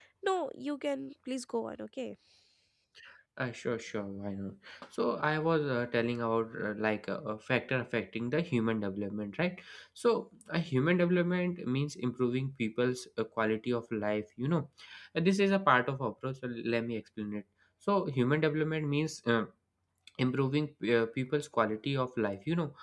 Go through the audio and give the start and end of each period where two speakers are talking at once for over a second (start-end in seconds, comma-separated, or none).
none